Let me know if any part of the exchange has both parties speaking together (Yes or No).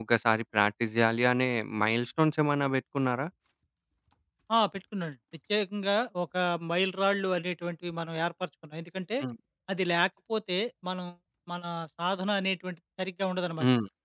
No